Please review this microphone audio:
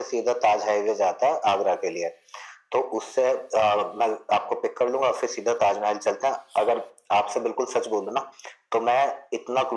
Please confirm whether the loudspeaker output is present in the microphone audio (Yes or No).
Yes